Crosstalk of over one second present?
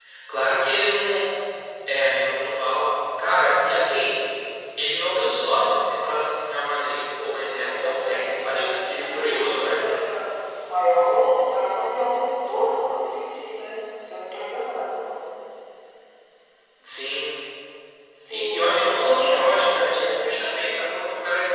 Yes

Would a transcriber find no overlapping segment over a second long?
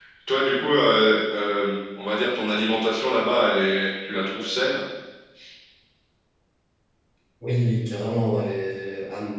Yes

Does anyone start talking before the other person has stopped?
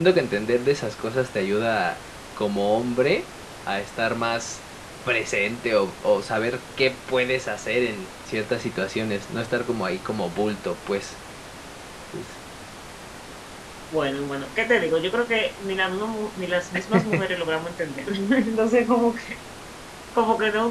No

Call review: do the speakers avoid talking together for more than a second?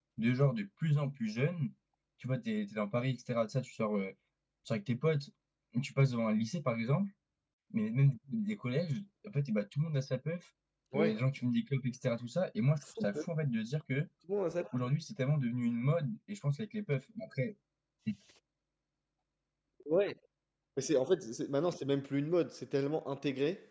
Yes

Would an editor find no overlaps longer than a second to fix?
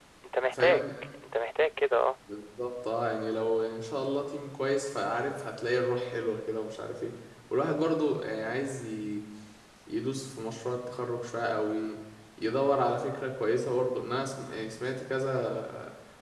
Yes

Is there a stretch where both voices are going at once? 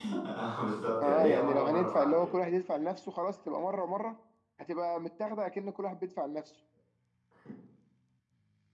Yes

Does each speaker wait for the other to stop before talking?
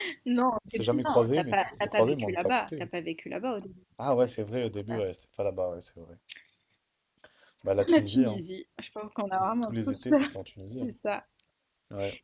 No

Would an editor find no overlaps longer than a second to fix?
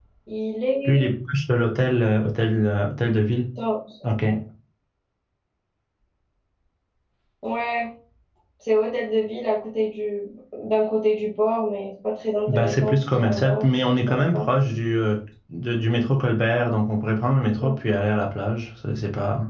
No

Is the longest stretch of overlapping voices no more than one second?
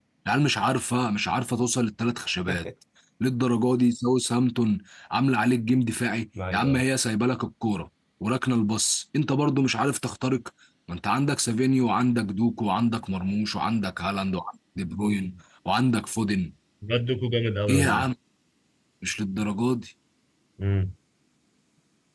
Yes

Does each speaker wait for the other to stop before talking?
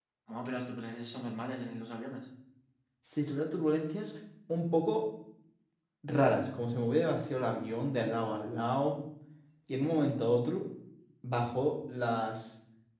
Yes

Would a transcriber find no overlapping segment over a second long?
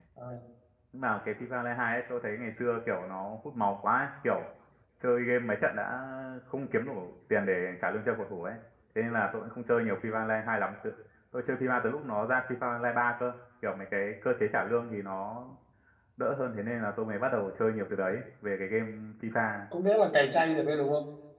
Yes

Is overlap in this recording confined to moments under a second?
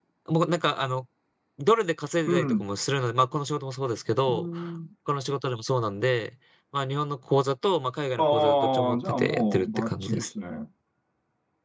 No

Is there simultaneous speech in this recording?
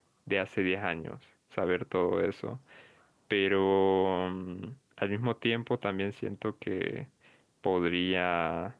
No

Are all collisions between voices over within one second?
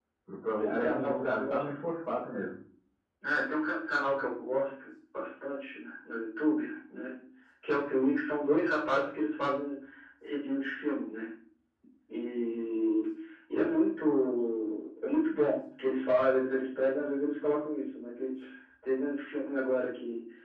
No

